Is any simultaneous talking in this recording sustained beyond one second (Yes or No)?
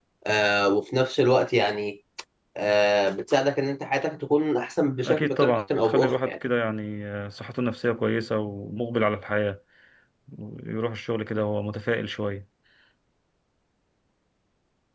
Yes